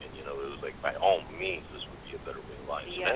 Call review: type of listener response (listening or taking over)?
taking over